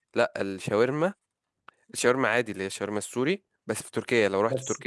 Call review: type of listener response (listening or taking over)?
listening